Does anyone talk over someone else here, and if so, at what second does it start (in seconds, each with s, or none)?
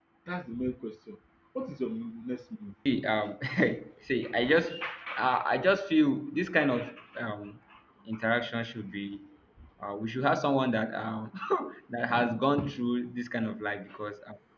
none